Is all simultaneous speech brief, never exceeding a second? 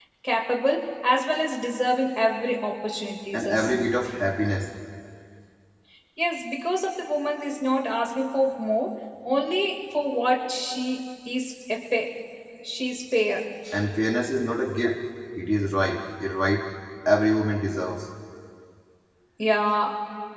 Yes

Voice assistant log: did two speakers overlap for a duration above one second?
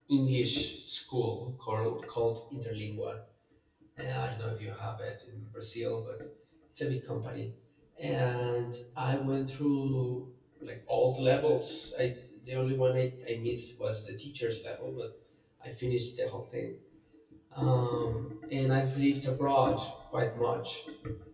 No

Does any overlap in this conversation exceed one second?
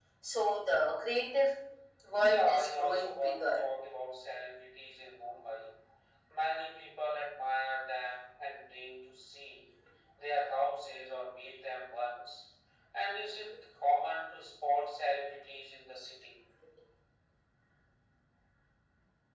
Yes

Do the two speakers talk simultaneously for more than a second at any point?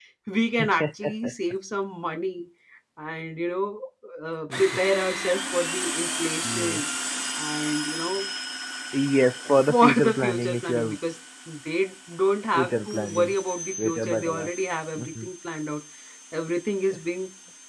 Yes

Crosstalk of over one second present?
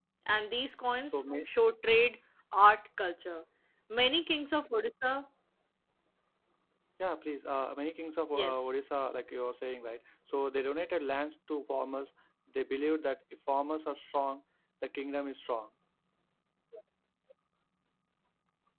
No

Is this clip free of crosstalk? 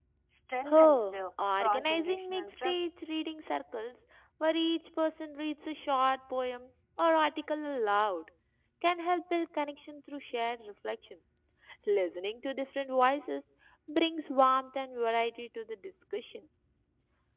No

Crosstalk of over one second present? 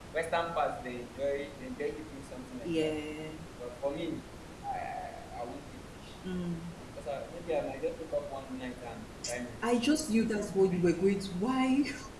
No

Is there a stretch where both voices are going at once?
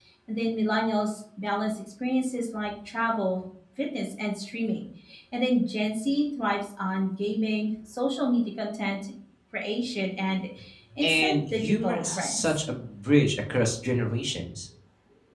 Yes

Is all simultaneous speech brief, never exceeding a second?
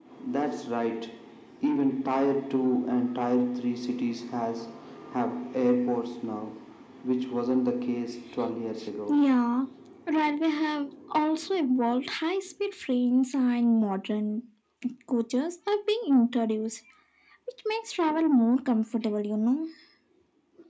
Yes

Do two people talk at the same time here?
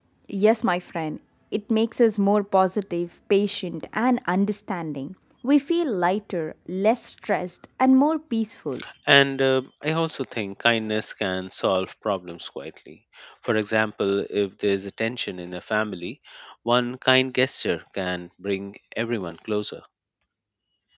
No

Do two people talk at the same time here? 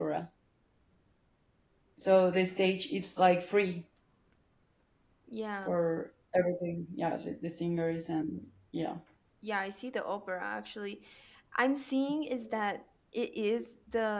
No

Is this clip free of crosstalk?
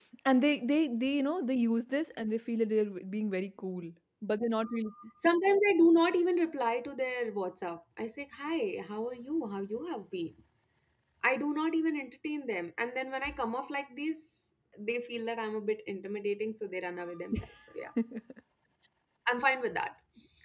Yes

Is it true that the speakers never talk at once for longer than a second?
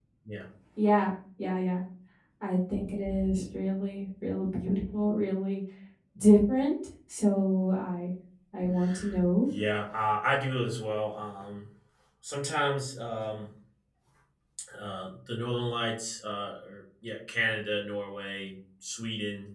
Yes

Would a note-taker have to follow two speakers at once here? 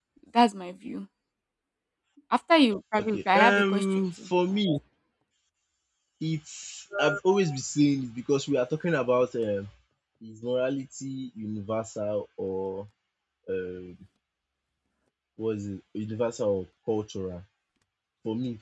Yes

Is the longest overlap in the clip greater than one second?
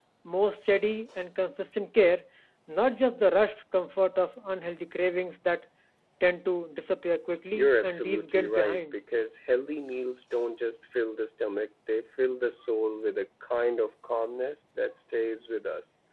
Yes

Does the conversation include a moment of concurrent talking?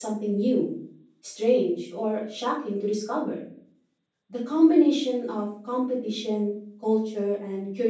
No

